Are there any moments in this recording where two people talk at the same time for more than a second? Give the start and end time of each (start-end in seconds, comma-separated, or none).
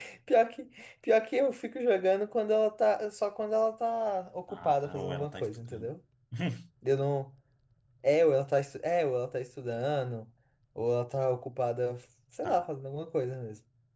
4.5-5.9